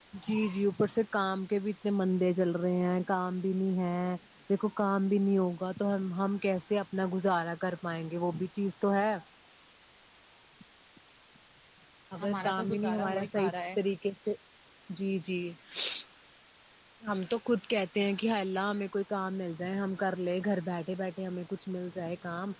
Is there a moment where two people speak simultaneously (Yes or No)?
Yes